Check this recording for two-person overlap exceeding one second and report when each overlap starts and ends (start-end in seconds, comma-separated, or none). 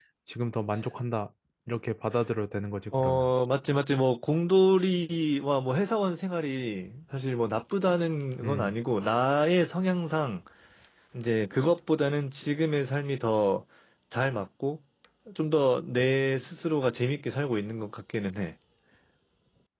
none